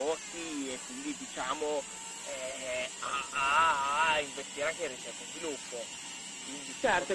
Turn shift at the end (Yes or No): Yes